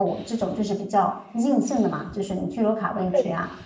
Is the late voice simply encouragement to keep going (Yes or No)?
Yes